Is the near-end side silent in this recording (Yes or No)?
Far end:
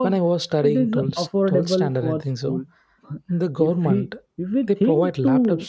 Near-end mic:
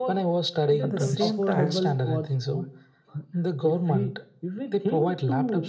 No